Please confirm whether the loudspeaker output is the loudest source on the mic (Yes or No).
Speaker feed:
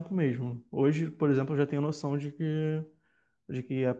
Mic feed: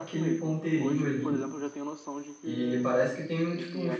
No